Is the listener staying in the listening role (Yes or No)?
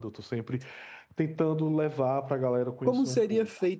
No